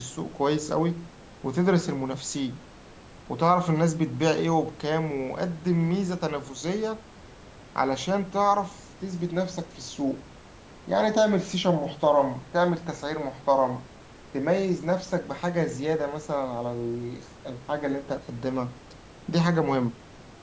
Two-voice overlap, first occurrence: none

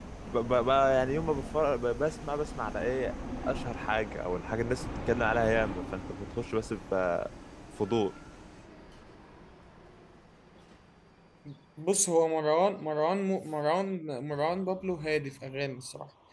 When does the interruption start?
none

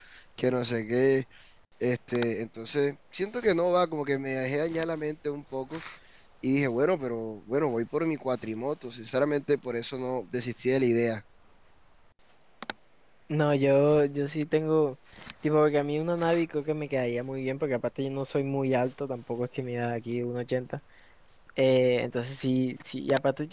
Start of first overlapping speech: none

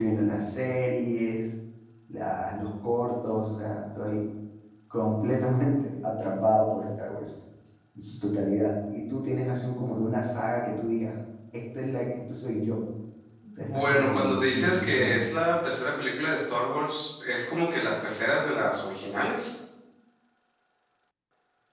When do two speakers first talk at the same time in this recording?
13.6 s

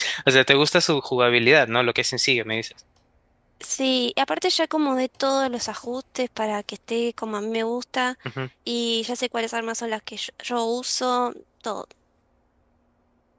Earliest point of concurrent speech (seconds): none

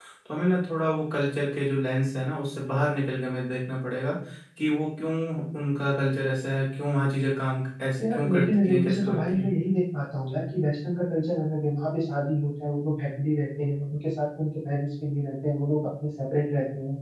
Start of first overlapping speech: 8.0 s

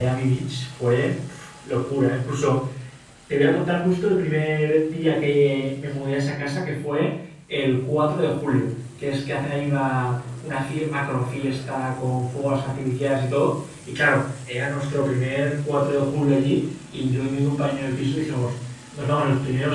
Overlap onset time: none

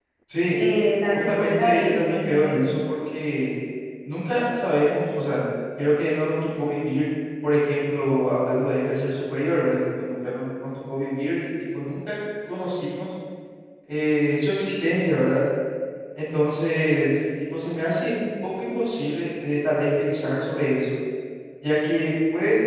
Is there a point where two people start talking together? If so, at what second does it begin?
1.1 s

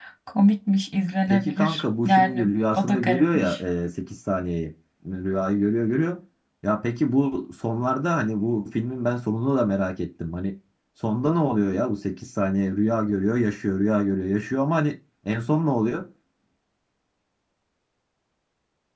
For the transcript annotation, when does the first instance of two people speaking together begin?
1.3 s

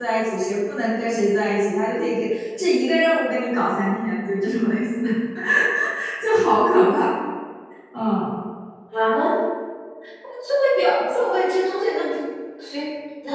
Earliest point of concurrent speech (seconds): none

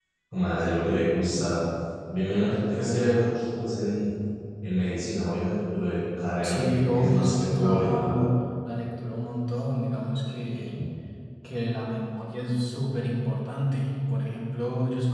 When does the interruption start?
6.4 s

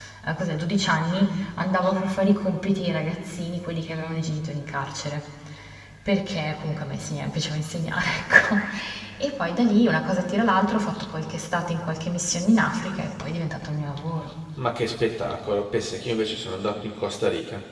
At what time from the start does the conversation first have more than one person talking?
none

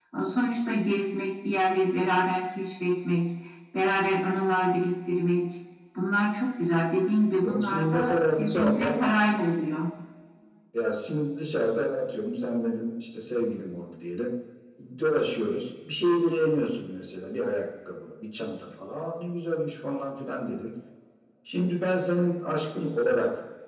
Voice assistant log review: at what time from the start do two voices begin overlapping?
7.4 s

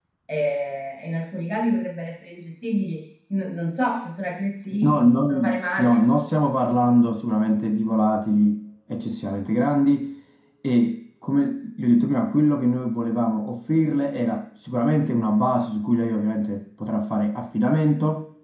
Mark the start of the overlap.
4.7 s

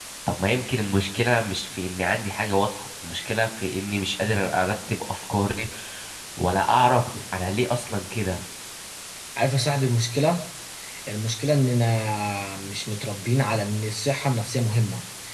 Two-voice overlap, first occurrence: none

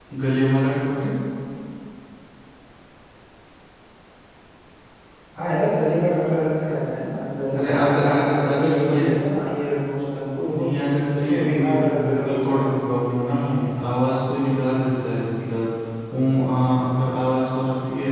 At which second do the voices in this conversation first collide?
7.5 s

